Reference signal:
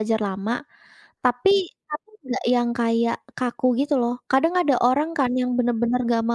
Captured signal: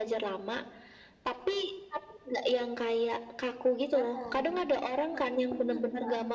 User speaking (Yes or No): Yes